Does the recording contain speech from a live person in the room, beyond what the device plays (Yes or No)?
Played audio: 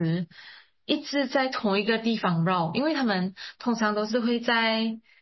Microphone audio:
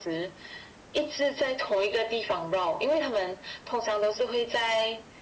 No